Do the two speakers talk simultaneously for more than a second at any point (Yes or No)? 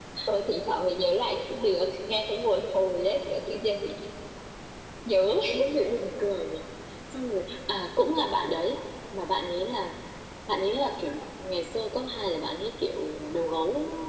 No